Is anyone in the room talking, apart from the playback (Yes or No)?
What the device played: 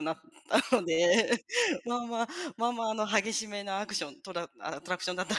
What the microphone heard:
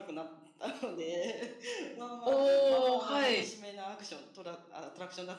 Yes